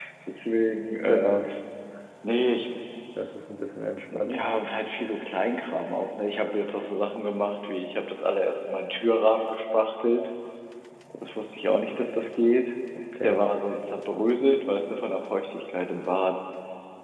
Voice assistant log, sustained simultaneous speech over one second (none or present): none